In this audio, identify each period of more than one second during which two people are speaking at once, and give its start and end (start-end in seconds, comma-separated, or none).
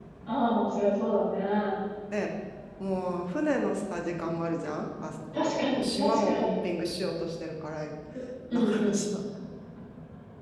5.3-6.5